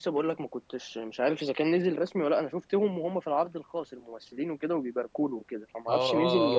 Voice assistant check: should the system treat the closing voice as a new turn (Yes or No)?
Yes